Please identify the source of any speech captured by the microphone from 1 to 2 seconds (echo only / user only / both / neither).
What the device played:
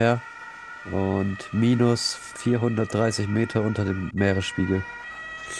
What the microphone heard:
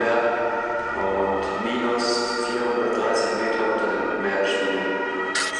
echo only